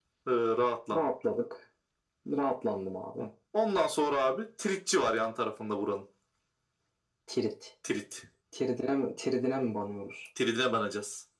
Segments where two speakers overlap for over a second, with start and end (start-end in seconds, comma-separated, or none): none